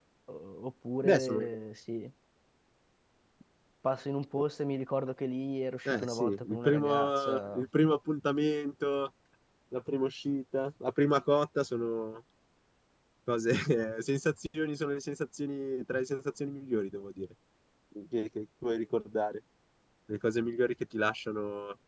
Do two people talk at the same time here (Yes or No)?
Yes